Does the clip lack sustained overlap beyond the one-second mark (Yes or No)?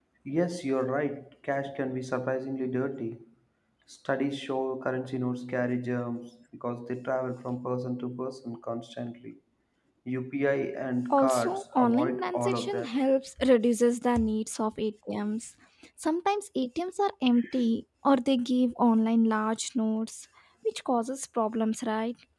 No